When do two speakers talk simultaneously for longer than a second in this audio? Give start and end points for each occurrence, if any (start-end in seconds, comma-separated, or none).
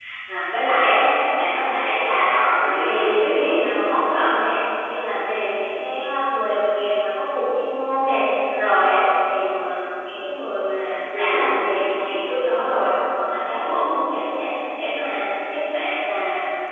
2.3-3.6